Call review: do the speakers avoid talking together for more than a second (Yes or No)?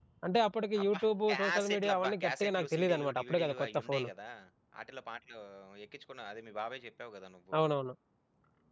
No